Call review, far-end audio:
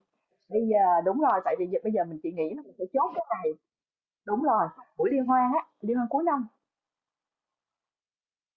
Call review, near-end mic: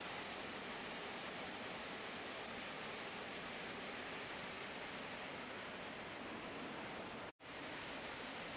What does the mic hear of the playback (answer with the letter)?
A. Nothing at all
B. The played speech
A